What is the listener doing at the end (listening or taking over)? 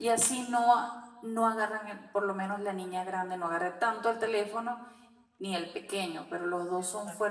listening